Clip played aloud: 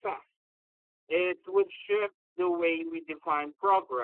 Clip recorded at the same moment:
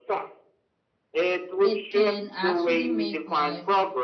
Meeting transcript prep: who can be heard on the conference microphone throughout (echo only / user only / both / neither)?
both